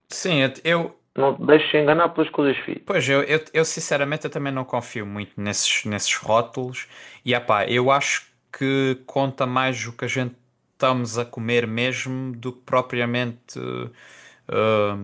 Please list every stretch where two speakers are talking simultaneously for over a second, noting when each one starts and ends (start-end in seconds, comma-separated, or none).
none